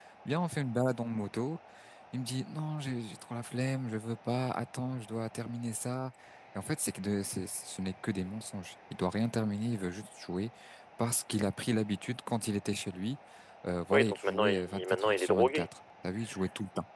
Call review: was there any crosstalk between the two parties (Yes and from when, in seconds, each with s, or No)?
Yes, from 13.9 s